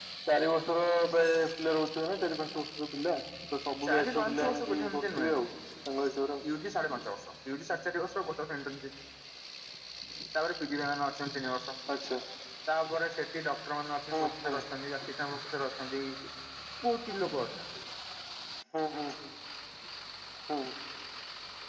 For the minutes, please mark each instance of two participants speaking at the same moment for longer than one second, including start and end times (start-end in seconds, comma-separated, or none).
3.9-5.4